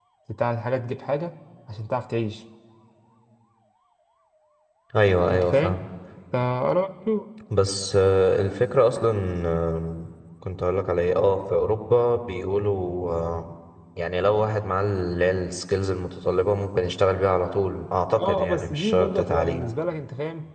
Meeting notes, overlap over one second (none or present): present